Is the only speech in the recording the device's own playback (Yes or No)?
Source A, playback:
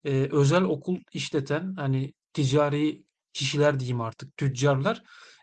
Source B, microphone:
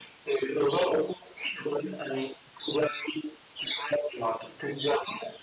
Yes